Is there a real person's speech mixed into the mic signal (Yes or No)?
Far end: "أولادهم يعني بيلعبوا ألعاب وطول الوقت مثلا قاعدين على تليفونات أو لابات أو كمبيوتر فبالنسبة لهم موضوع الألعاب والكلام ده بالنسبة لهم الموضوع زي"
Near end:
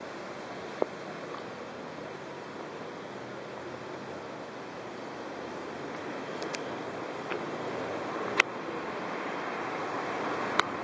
No